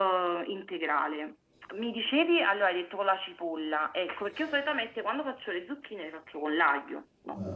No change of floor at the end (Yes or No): No